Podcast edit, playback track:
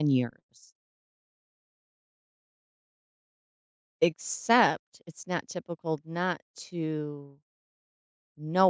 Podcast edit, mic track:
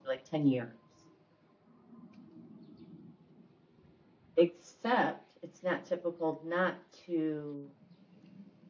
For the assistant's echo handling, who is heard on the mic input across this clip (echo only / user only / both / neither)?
echo only